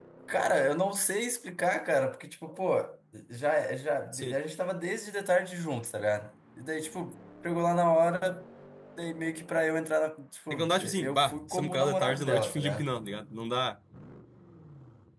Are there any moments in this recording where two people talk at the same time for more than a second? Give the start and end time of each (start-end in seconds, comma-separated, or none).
10.5-12.8